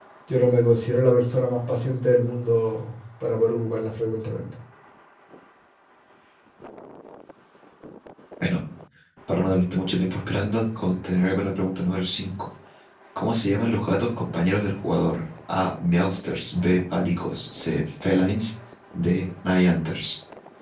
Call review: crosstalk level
none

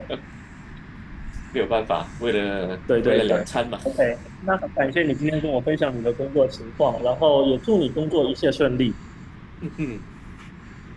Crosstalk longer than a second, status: none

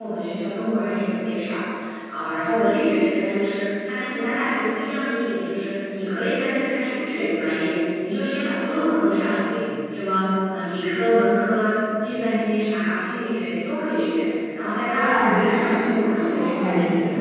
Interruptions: present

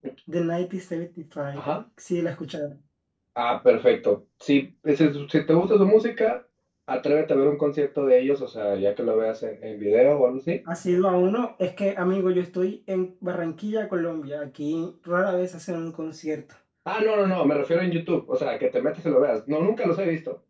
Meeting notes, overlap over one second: none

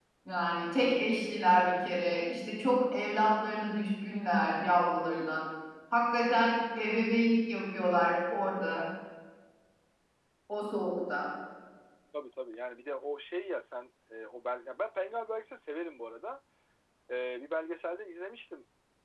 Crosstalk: none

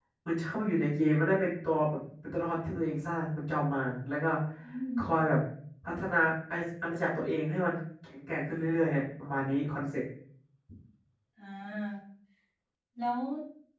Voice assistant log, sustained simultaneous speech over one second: none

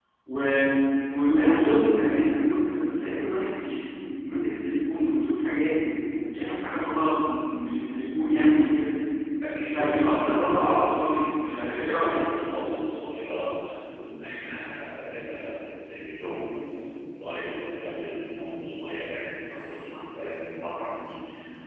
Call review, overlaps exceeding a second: present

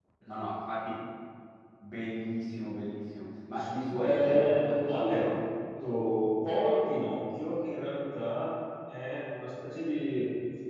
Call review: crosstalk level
present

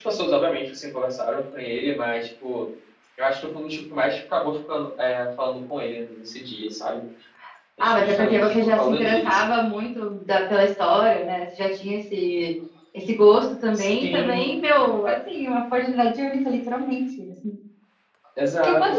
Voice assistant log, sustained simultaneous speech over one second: present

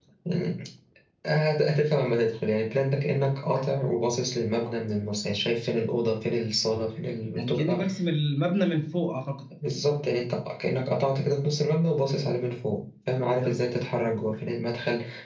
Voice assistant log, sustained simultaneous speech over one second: none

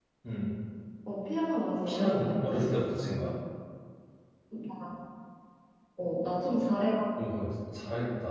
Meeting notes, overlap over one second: present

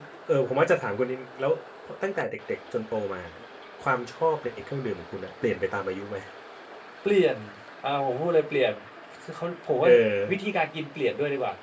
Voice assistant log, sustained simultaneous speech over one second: none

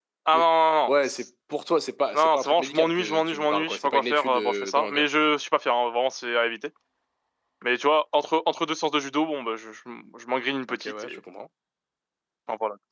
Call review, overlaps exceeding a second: present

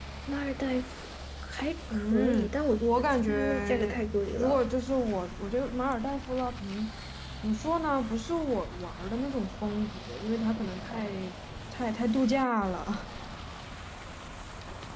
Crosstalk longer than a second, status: present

